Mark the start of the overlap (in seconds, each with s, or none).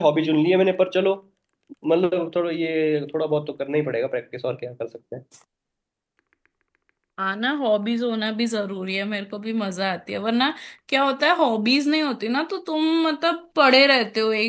none